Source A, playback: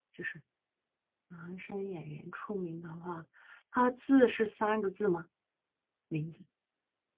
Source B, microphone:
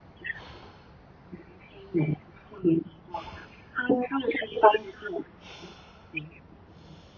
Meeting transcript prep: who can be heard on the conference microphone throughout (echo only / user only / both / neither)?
echo only